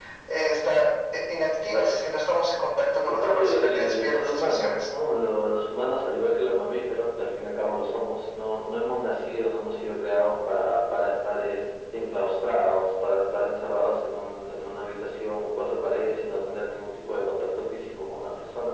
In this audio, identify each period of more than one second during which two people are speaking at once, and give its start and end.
3.2-4.9

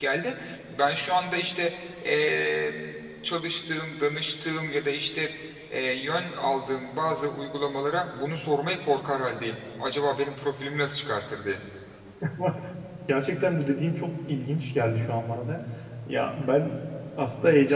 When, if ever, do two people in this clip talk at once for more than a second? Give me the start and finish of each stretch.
none

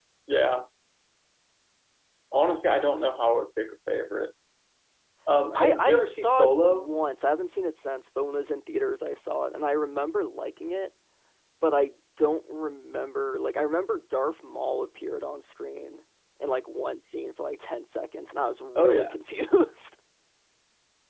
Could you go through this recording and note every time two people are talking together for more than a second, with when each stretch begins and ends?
5.5-6.9

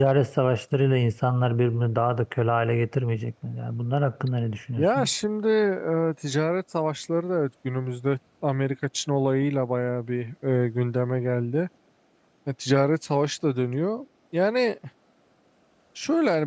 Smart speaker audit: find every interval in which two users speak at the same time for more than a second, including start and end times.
none

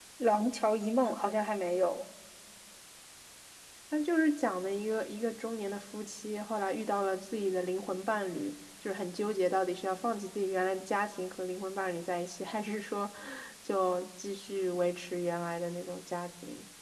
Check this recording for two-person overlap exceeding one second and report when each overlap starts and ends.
none

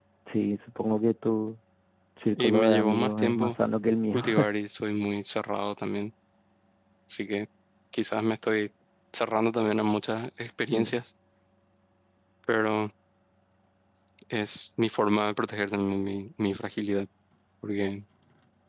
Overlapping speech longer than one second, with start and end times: 2.4-3.6

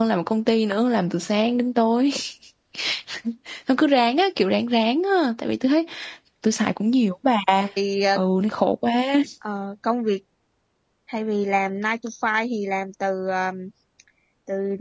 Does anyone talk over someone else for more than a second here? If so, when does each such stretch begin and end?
none

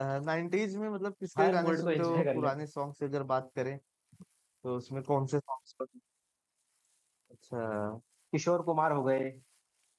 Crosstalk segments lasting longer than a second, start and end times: 1.4-2.6

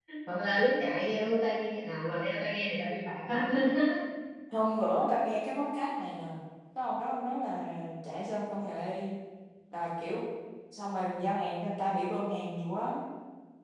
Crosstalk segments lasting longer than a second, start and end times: none

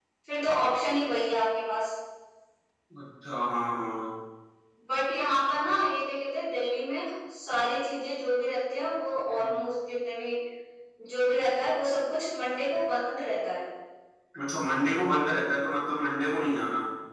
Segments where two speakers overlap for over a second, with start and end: none

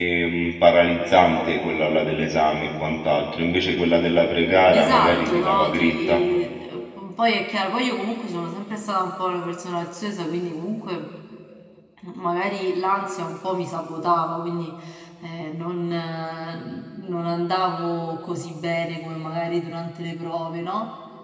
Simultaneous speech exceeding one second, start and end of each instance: 4.7-6.2

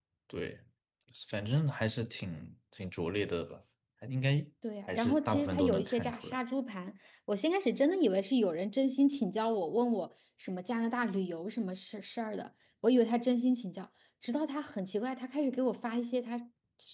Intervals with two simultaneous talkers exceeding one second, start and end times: 4.9-6.4

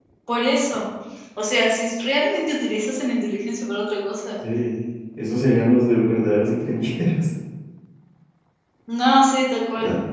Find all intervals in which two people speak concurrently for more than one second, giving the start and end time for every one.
none

